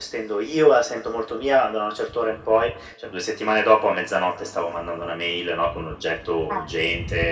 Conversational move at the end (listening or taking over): listening